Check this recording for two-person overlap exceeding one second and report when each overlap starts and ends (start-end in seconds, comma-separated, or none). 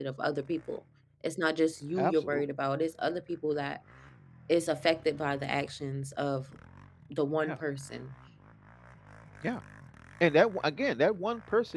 none